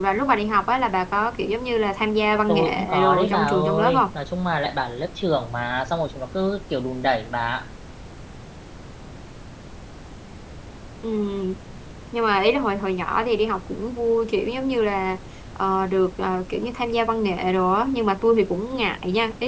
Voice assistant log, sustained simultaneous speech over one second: present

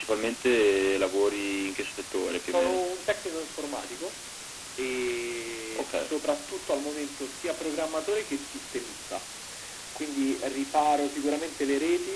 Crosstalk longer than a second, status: none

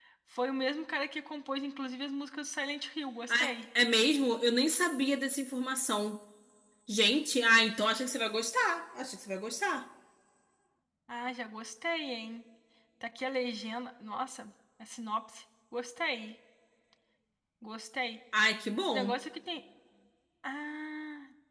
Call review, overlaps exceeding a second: none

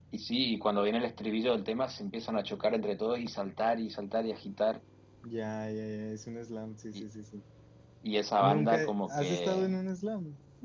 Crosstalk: present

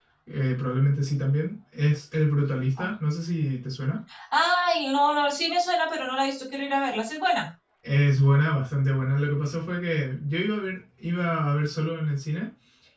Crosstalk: none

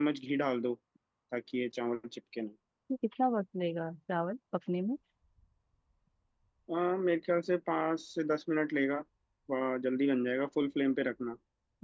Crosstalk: none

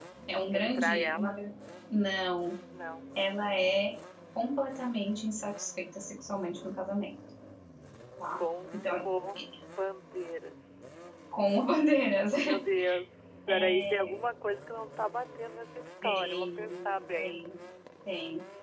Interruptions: present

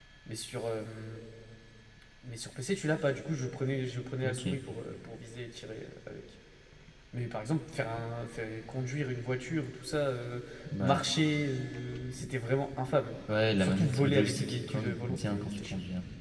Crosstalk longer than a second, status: present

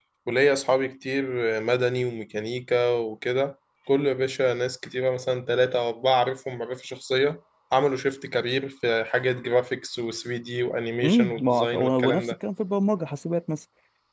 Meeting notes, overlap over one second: present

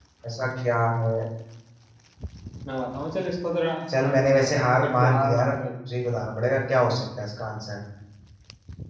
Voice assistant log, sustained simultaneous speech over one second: present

